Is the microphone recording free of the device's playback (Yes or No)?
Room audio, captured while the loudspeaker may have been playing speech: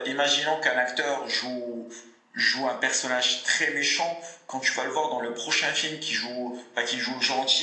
No